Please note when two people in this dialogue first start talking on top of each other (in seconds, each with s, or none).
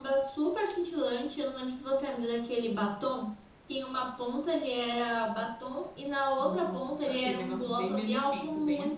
6.4 s